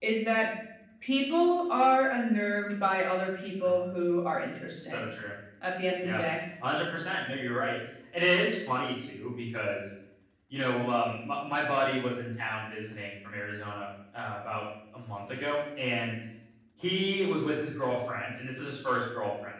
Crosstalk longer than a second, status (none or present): none